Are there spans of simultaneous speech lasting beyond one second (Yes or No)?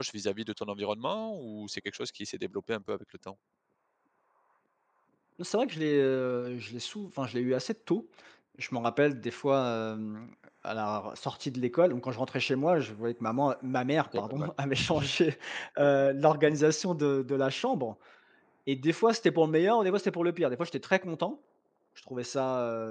No